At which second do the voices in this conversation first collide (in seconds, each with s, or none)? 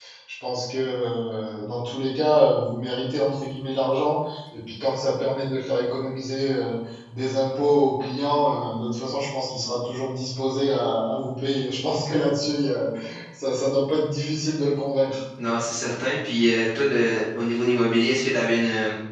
none